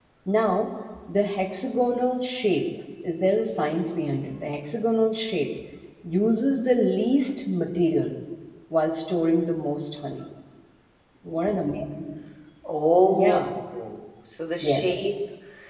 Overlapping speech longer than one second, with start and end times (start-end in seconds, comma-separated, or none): none